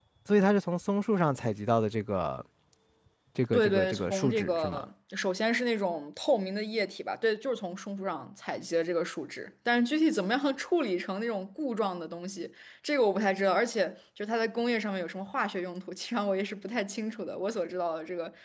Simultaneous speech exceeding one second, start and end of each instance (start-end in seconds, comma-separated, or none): 3.5-4.8